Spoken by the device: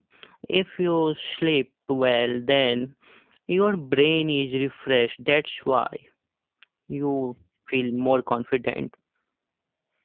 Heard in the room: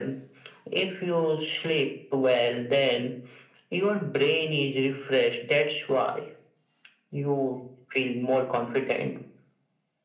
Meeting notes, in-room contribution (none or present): none